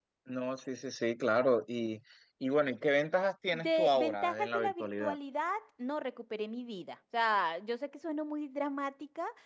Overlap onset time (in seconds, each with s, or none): 3.5 s